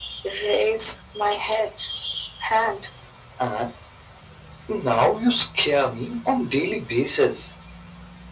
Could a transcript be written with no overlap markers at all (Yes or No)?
Yes